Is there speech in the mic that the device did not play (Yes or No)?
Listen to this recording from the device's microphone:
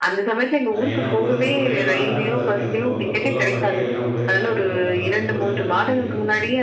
Yes